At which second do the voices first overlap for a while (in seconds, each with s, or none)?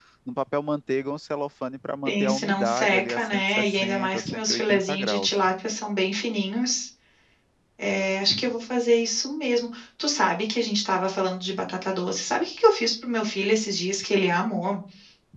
2.0 s